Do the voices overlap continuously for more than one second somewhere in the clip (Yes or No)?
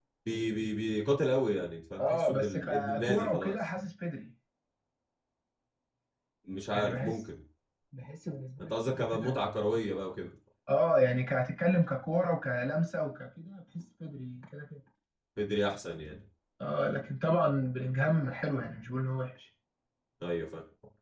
Yes